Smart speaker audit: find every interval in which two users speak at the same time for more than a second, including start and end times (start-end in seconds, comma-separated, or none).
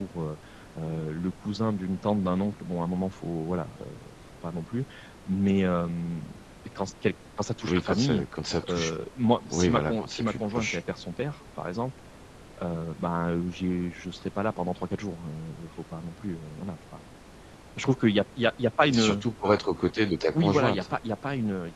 9.5-10.8